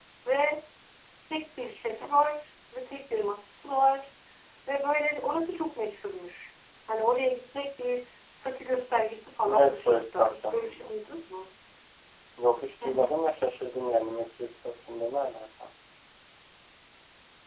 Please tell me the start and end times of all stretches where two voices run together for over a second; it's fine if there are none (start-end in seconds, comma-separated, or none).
9.5-10.9